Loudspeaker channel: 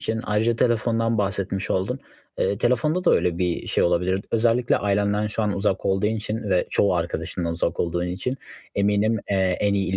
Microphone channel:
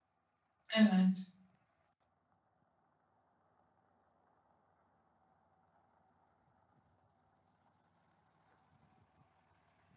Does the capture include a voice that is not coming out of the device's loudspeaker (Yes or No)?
Yes